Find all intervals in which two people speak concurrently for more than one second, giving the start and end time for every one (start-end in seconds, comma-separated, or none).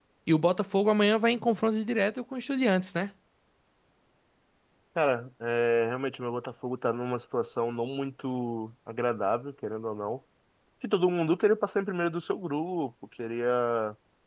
none